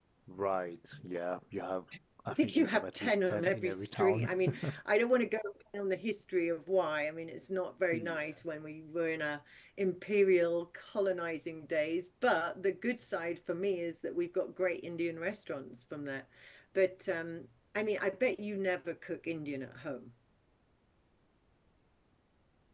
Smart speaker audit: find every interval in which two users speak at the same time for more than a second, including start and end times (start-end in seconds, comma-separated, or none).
2.3-4.8